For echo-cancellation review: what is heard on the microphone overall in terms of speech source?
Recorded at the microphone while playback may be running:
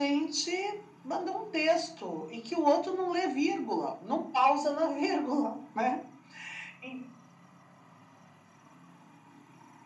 echo only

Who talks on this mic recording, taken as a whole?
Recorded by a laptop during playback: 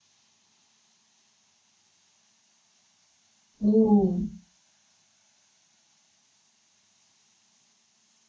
user only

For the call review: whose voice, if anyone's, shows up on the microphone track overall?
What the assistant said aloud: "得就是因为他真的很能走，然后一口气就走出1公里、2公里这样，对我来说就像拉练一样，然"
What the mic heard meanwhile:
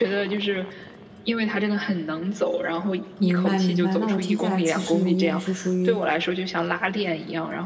both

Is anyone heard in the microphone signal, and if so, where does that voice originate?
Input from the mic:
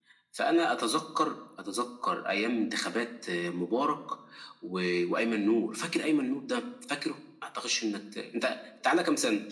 echo only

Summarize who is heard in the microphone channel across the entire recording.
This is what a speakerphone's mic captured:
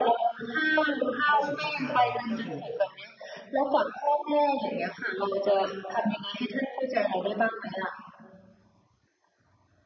both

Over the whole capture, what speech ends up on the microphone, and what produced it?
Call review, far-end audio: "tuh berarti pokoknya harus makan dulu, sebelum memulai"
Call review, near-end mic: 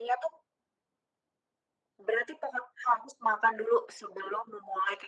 echo only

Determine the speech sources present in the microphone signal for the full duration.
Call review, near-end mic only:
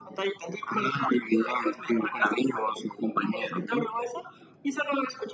echo only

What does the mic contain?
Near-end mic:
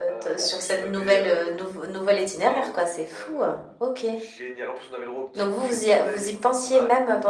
echo only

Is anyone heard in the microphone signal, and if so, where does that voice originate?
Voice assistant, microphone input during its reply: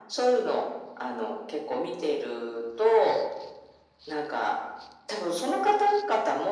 echo only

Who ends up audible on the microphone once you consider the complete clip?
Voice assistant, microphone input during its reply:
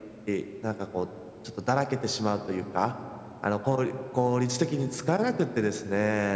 echo only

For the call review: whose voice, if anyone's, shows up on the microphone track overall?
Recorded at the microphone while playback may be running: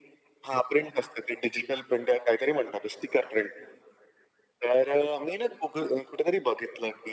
echo only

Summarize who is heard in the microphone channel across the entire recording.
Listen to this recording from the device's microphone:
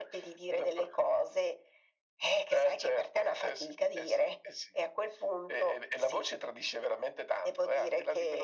echo only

